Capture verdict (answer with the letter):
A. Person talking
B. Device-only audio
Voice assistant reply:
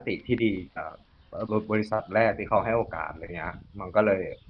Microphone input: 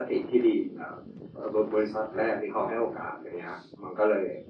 B